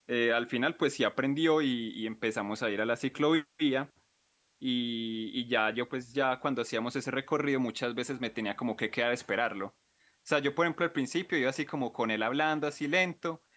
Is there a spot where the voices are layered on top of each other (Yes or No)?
No